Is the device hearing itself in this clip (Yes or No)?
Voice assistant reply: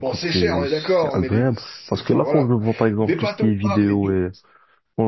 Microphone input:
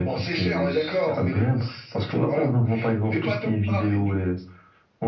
Yes